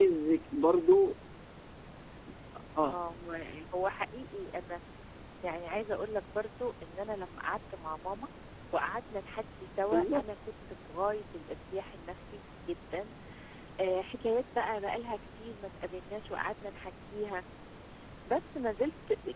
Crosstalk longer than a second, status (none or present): none